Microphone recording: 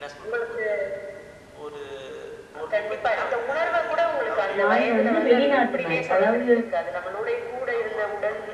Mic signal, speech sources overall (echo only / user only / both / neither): both